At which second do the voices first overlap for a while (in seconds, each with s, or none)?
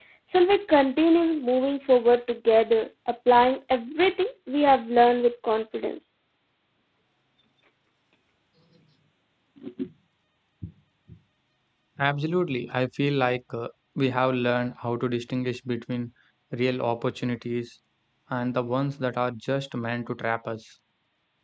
none